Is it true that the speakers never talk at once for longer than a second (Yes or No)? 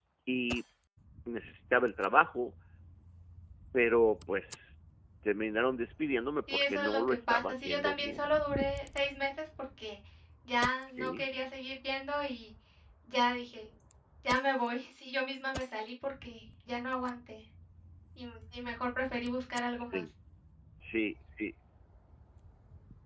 No